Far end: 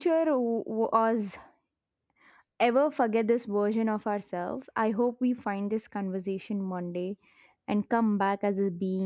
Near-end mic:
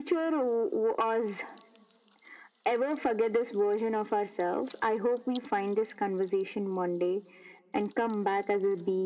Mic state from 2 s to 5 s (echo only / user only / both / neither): echo only